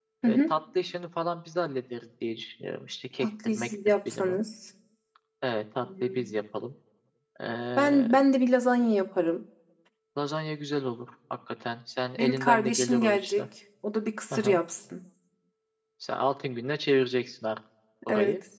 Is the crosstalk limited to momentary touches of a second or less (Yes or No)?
No